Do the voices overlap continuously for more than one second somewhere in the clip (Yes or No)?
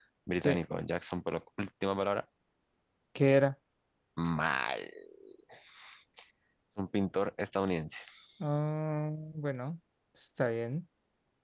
No